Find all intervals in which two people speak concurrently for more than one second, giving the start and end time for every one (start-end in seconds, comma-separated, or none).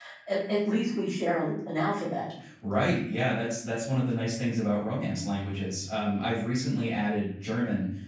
none